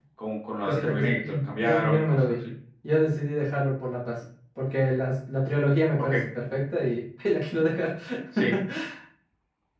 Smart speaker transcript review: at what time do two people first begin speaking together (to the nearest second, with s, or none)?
1 s